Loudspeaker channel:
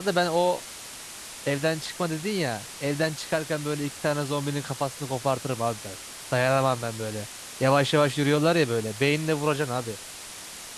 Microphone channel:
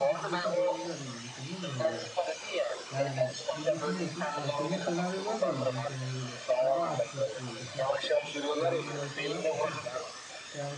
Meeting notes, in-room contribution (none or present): present